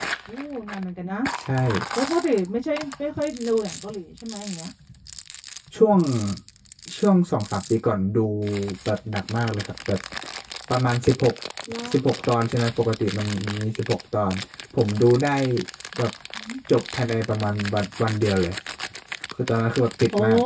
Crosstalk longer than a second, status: none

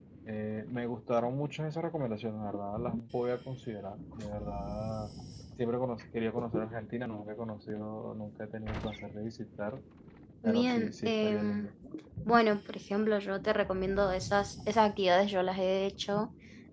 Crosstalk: present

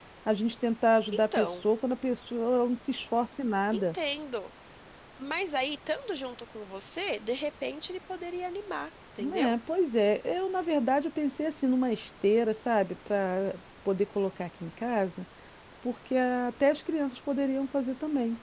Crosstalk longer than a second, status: none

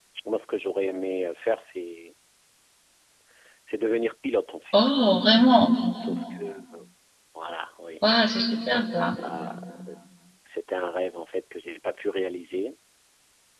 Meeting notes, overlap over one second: none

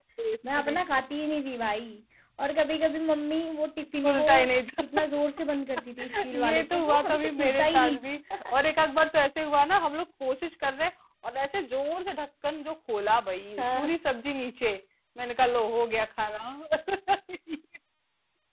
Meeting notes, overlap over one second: present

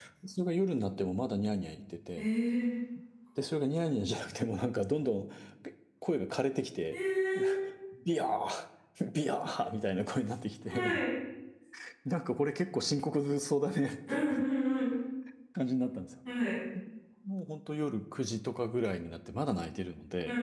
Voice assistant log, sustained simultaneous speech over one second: none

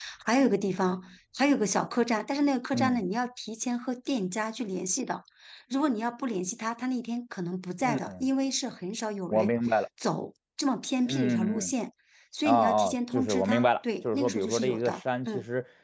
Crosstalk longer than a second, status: present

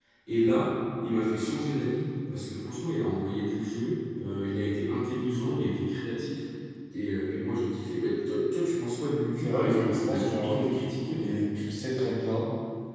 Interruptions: present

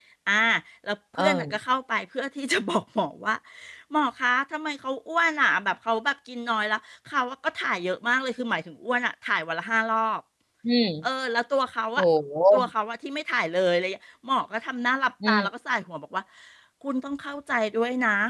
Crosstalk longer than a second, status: none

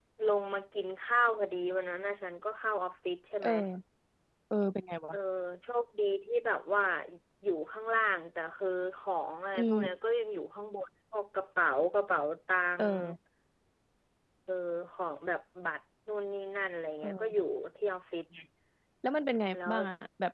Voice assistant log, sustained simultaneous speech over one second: none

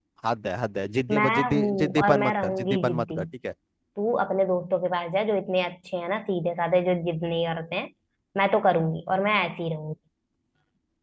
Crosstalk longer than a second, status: present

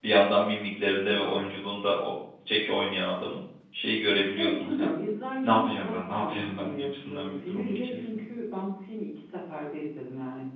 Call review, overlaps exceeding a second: present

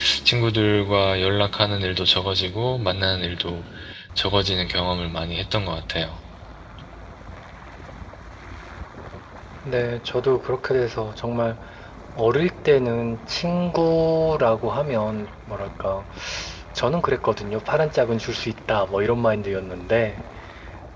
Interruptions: none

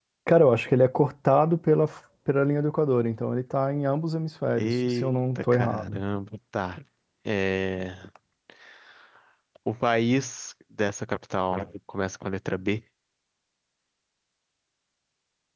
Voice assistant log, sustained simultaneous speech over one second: present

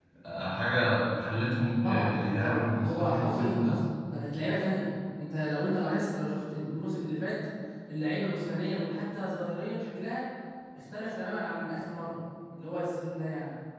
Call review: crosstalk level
present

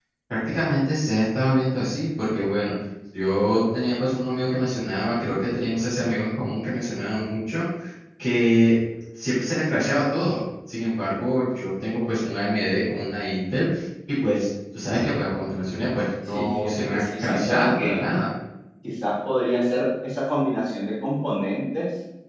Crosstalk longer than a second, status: present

